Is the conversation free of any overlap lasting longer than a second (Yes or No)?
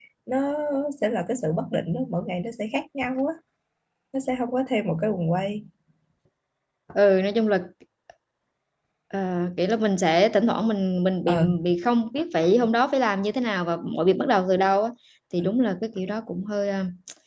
Yes